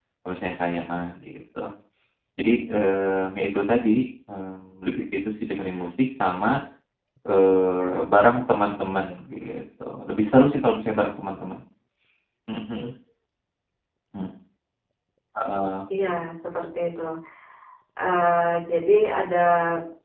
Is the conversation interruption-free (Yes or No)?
Yes